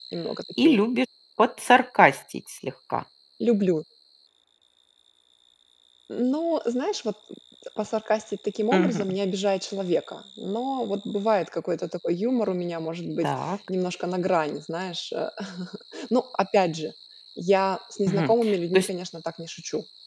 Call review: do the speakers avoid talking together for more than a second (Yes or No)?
Yes